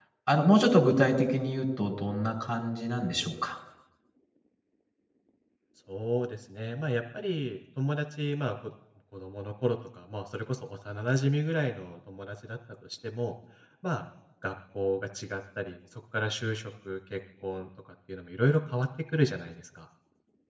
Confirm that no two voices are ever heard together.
Yes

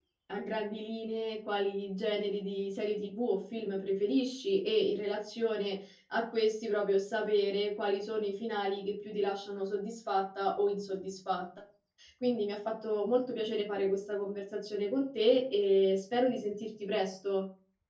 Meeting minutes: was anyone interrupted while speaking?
No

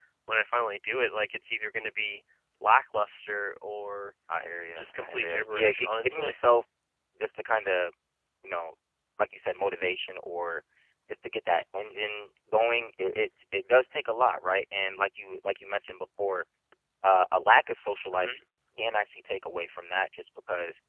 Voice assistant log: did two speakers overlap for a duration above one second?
Yes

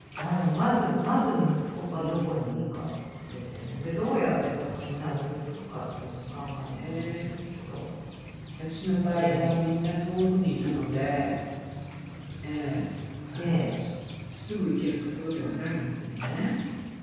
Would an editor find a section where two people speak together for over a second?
Yes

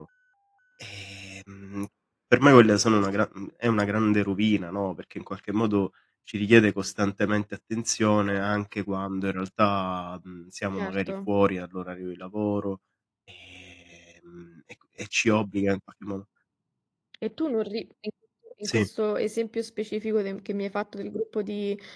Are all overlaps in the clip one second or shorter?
Yes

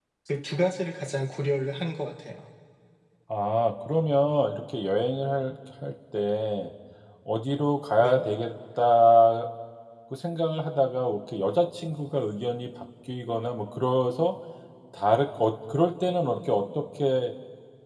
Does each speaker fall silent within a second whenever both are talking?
Yes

